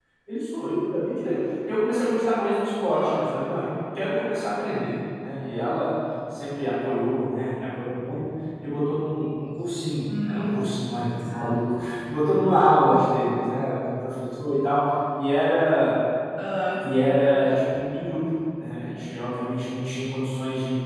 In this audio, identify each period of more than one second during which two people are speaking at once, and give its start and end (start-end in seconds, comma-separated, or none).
none